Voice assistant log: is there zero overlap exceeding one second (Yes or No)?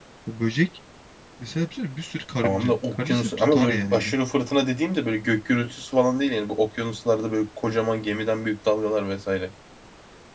No